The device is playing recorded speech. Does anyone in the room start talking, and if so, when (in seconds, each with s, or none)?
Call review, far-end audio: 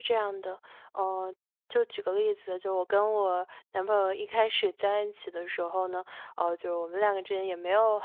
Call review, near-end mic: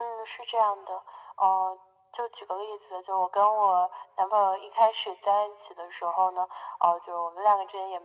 none